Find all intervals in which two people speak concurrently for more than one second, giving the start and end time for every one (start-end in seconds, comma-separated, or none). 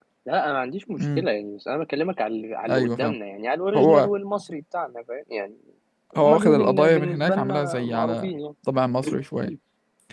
6.2-8.3